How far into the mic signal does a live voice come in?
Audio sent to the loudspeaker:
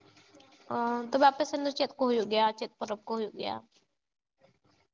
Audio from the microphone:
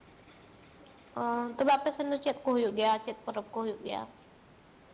none

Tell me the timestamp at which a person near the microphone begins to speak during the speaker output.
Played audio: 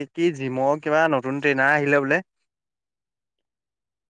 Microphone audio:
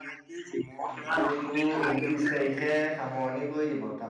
1 s

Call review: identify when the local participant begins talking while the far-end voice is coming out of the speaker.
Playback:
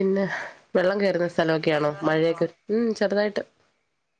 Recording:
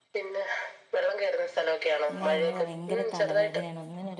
2 s

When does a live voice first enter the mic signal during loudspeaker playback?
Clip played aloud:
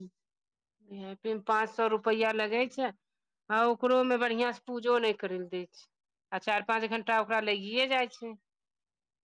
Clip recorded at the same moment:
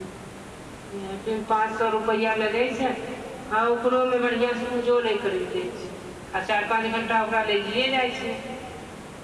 none

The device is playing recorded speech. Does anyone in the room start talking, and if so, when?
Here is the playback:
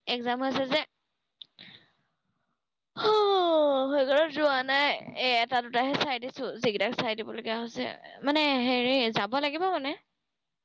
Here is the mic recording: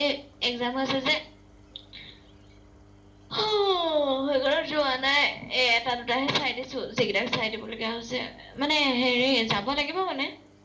none

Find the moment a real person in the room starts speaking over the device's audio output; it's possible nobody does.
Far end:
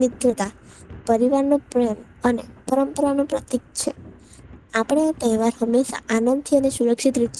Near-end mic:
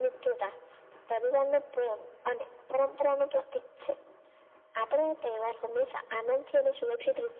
none

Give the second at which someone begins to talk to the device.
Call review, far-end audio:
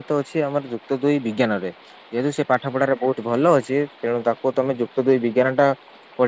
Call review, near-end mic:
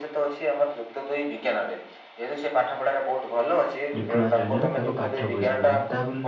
4 s

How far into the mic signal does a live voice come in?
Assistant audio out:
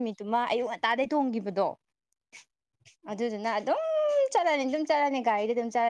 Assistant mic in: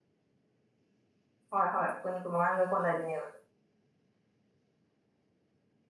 2 s

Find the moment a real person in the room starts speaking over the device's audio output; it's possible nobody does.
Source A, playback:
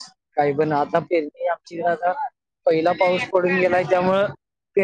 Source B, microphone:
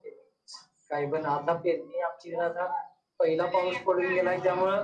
none

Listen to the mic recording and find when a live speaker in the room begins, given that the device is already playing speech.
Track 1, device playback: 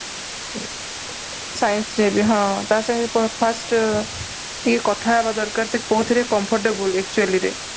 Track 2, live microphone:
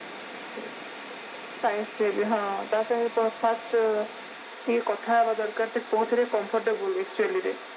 none

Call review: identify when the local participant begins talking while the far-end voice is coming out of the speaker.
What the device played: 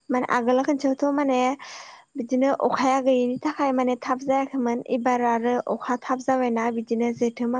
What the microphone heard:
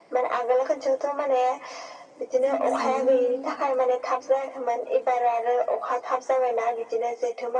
2 s

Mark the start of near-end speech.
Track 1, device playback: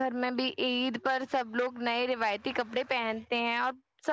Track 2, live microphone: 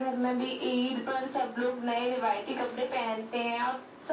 none

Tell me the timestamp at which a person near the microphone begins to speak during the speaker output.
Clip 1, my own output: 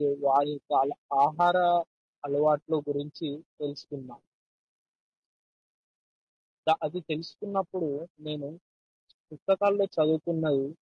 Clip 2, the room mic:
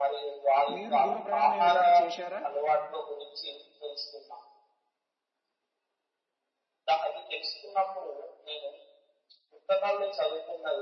1 s

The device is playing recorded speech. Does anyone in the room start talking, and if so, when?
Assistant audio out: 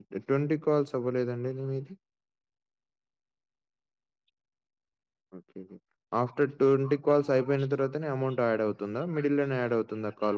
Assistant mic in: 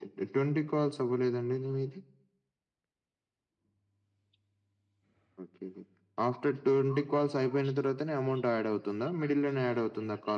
none

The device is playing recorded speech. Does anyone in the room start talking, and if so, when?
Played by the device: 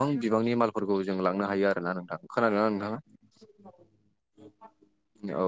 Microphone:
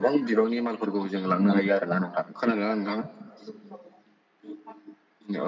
none

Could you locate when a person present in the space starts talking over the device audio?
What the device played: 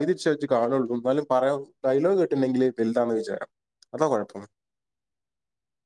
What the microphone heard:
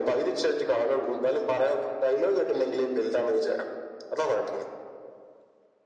none

